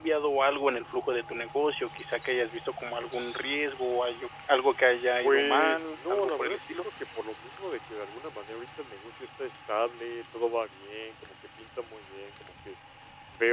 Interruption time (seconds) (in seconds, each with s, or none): 5.2 s